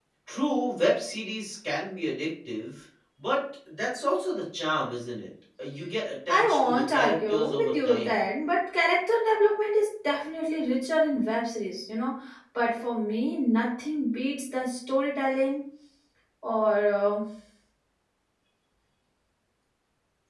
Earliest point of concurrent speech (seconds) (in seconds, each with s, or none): 6.3 s